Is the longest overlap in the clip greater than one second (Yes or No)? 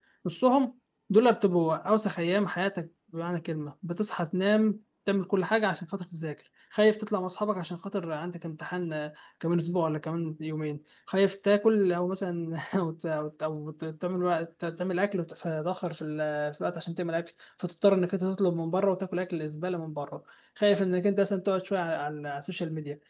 No